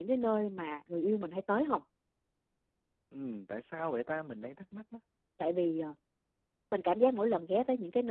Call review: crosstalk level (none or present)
none